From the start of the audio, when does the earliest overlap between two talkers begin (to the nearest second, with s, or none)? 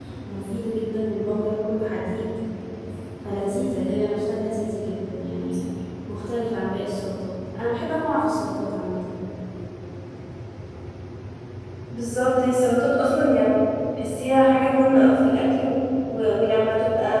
none